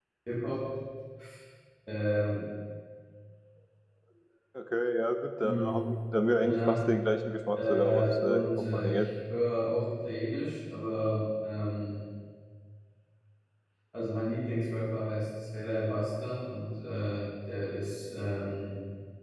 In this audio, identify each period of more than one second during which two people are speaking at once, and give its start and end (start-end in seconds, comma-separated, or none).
7.7-9.1